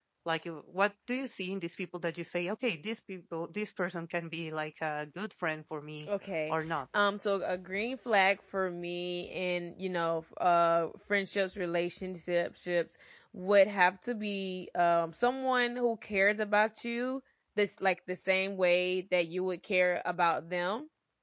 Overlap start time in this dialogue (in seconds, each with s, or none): none